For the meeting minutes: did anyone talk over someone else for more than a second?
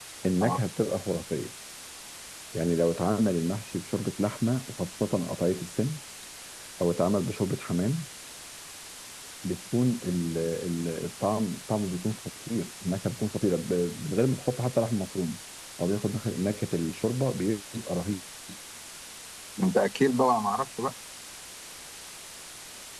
No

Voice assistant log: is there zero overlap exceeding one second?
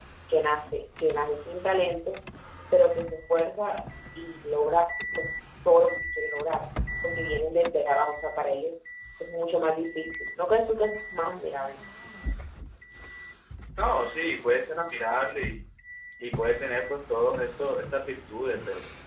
Yes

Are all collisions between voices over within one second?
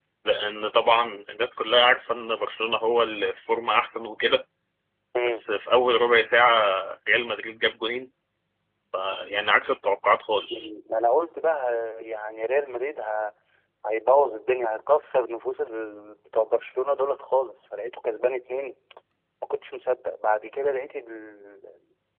Yes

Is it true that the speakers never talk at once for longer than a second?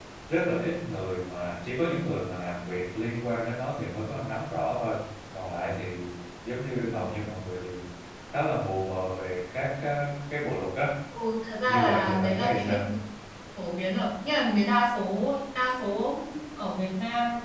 No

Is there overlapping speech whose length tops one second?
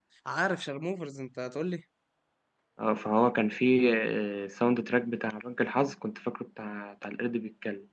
No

